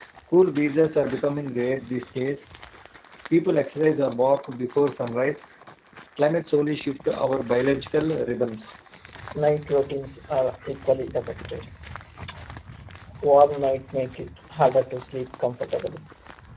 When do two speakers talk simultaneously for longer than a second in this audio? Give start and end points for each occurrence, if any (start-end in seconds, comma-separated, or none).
none